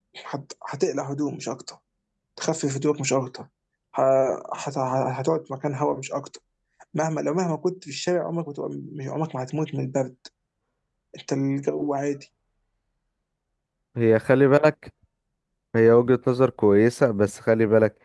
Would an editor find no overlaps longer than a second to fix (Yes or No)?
Yes